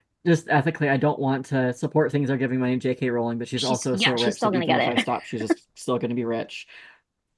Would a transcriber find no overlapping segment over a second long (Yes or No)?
No